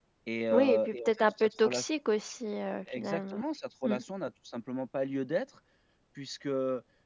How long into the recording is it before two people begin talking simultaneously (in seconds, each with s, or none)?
0.5 s